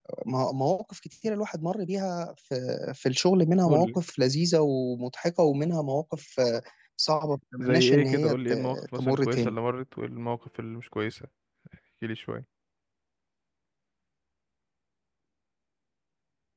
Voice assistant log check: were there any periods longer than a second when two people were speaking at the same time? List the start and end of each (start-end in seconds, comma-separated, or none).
7.6-9.6